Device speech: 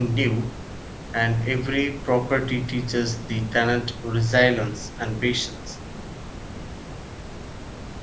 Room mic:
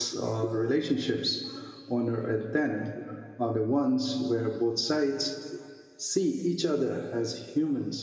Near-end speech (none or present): present